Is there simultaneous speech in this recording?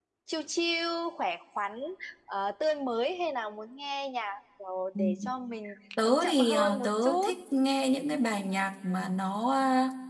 Yes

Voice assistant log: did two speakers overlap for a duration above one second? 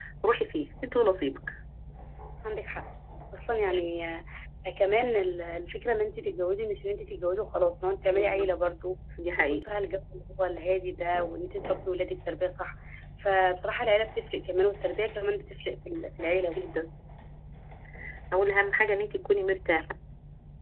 No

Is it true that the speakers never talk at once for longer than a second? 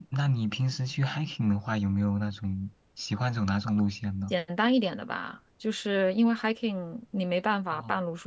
Yes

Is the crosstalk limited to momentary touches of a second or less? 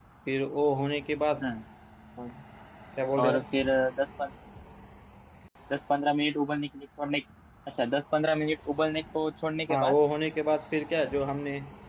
Yes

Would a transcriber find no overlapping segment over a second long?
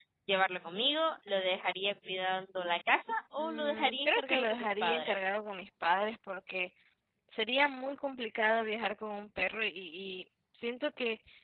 No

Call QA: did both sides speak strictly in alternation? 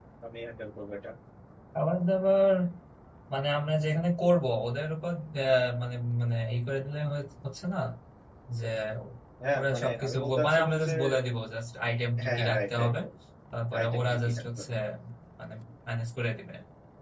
No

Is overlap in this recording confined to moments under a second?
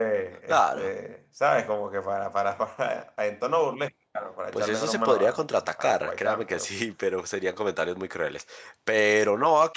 No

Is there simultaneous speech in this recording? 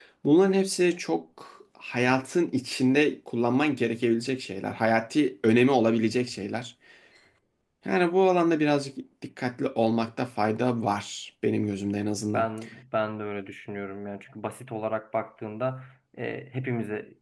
No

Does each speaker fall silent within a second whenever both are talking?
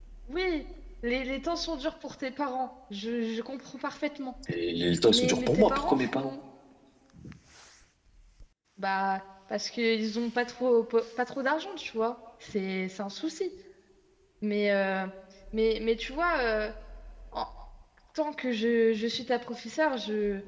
No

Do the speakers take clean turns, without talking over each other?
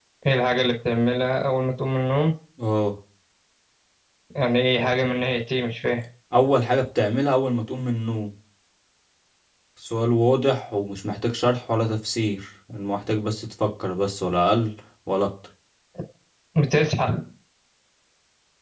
Yes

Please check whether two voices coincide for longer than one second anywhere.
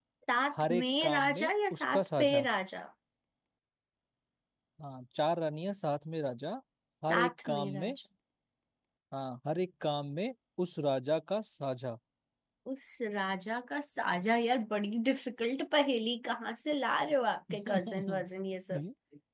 Yes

